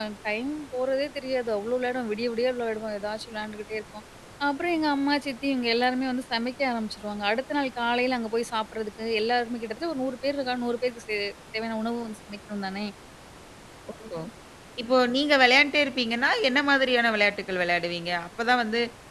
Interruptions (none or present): none